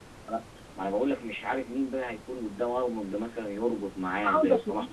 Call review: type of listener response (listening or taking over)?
taking over